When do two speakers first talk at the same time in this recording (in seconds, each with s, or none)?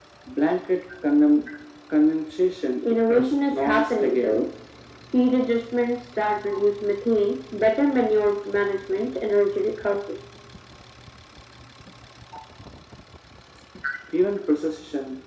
3.1 s